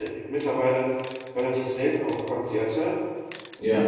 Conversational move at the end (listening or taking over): listening